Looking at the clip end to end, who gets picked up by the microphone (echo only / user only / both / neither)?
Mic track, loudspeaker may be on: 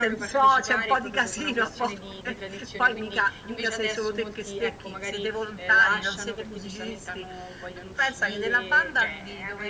both